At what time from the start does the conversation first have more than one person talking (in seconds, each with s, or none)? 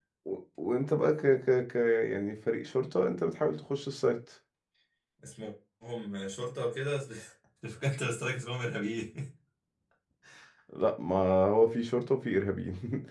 none